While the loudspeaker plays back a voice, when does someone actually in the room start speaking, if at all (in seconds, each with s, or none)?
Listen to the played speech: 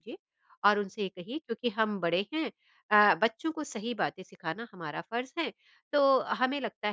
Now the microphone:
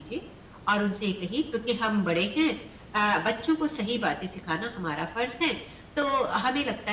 none